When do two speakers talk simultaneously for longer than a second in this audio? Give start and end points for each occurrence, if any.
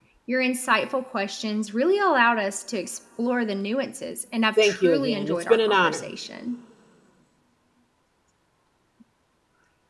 4.6-6.1

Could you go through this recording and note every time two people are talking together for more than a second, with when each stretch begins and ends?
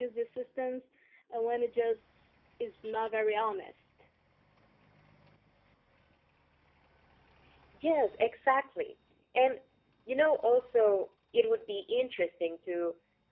none

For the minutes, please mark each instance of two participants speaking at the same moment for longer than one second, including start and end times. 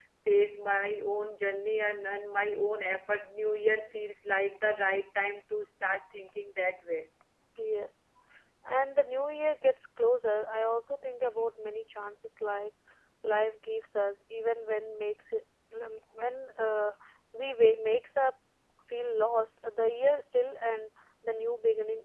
none

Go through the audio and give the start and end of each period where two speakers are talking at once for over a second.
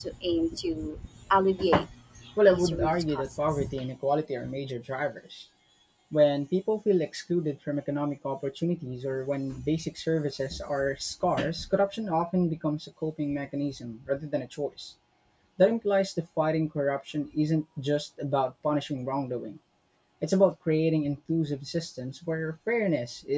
2.5-3.7

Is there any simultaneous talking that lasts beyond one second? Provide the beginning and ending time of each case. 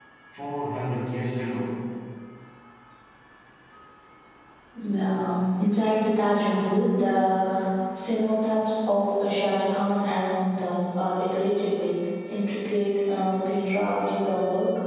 none

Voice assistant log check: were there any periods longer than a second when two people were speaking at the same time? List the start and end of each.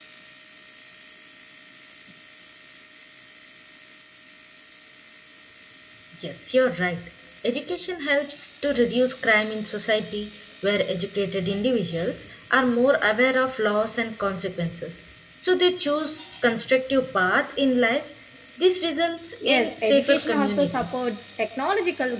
19.5-21.0

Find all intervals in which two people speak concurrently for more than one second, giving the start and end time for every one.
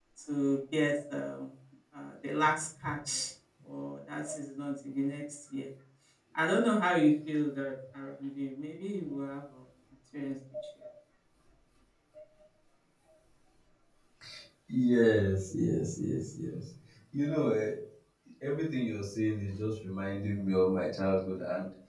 none

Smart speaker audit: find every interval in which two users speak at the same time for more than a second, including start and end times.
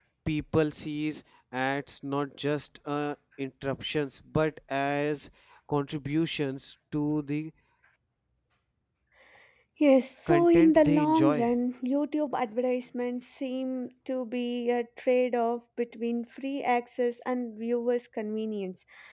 10.3-11.5

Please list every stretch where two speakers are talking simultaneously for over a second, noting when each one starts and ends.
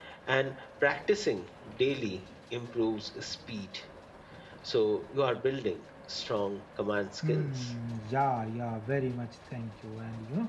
none

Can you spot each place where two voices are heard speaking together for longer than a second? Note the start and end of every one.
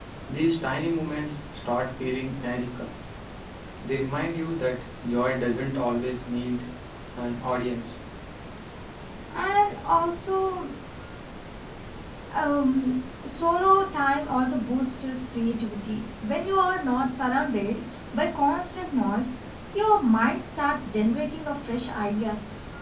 none

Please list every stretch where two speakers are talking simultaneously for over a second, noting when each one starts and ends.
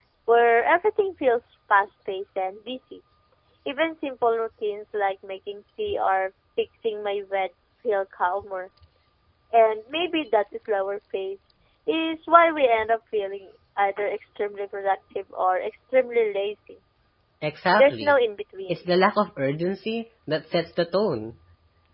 none

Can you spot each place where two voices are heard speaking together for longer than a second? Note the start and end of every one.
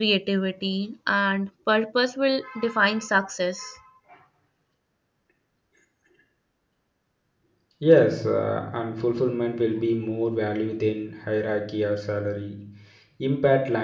none

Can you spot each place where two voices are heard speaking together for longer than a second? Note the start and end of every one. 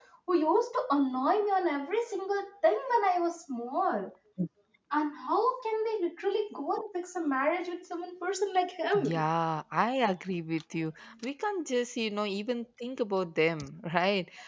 none

